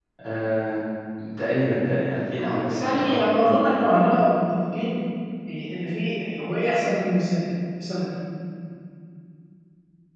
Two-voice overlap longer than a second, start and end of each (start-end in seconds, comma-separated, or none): 2.4-3.6